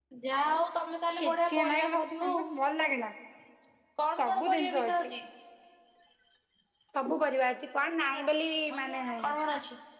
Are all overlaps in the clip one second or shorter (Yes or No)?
No